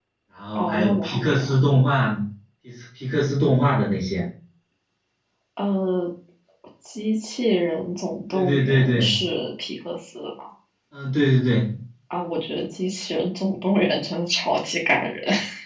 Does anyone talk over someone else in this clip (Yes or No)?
Yes